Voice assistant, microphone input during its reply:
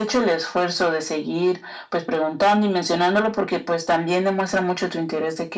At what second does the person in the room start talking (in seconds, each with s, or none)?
none